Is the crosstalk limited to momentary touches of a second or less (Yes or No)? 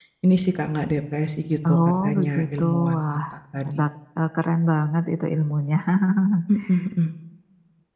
No